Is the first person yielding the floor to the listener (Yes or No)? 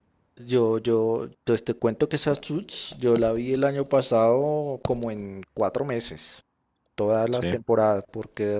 No